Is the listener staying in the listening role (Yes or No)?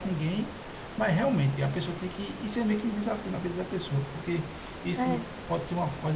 Yes